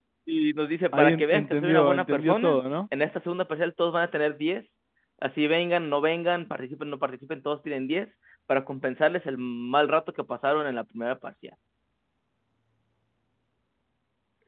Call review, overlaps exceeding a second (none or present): present